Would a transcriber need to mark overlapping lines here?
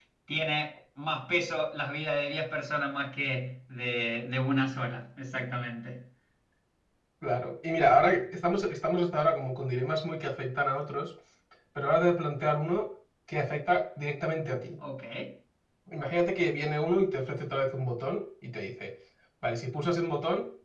No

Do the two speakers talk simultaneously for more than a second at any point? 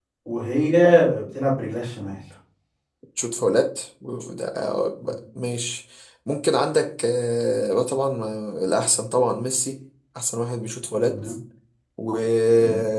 No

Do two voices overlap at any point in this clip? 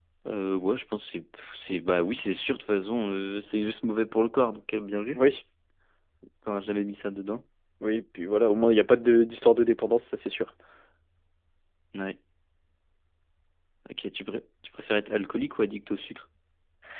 No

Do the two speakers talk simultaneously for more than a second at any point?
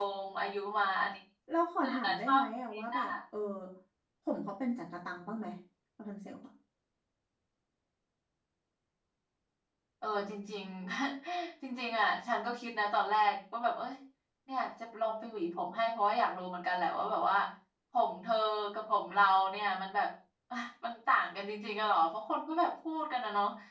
Yes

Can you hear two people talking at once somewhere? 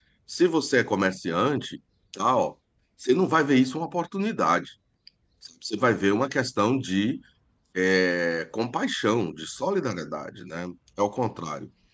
No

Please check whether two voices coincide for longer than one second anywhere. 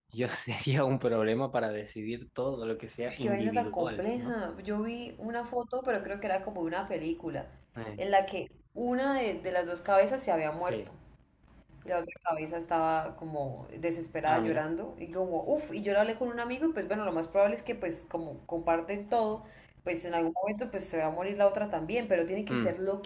Yes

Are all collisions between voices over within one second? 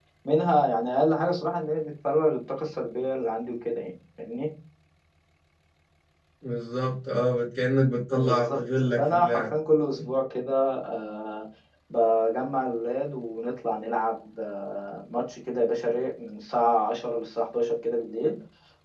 No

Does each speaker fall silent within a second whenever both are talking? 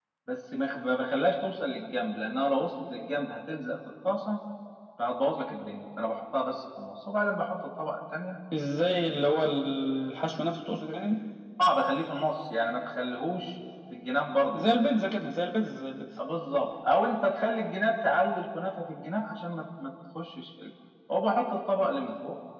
Yes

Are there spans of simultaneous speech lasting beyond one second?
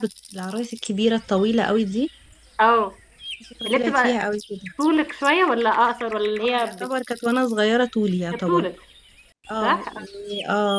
No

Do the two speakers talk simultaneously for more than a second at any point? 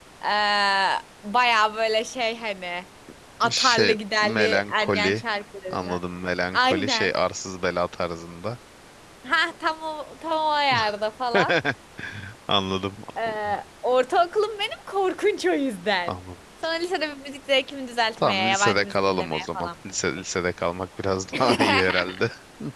Yes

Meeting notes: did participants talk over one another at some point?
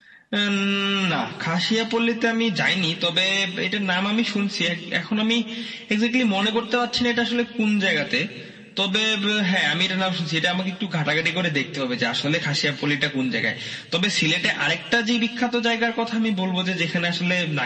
No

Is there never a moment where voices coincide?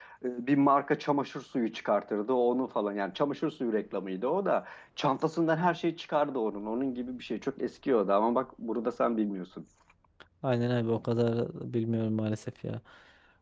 Yes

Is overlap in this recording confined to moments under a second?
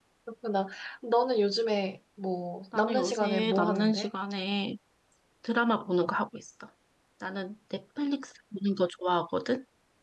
No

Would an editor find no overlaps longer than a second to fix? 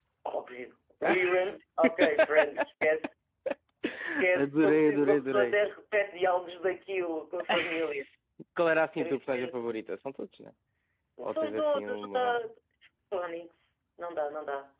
No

